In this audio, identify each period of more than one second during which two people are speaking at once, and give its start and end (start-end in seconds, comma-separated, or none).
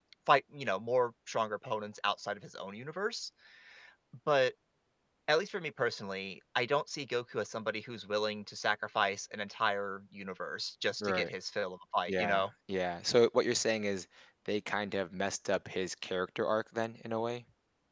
none